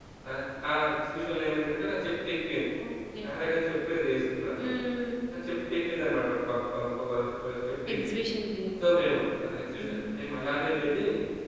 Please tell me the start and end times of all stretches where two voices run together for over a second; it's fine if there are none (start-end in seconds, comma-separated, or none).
none